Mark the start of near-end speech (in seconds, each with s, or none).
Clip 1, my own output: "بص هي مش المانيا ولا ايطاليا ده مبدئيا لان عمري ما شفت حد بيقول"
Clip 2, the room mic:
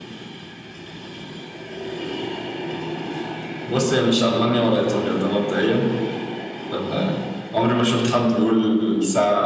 none